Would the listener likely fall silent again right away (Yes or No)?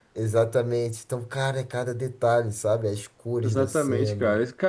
No